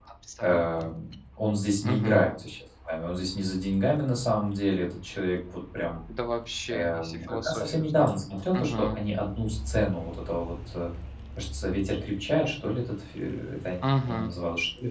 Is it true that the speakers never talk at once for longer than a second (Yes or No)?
No